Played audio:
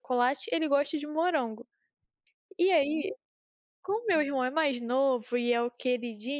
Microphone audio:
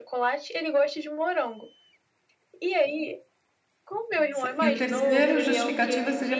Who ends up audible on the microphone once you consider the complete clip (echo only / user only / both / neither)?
both